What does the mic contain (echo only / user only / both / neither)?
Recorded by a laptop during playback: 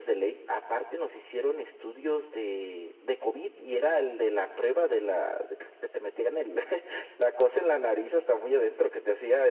echo only